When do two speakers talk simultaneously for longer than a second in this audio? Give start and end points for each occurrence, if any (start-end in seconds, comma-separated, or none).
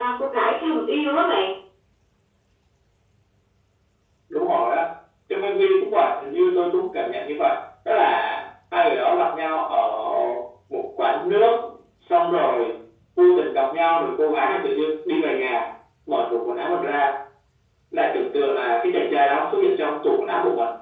none